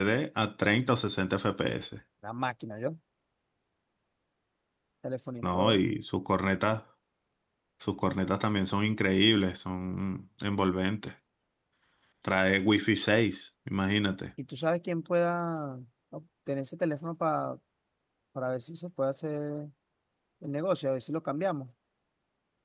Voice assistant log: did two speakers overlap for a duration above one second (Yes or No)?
No